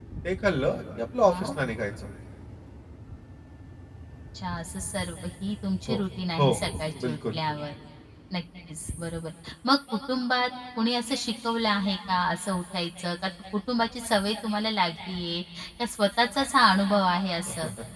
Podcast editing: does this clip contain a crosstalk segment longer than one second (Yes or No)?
No